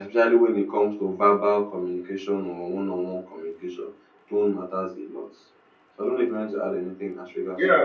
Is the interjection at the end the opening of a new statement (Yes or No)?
Yes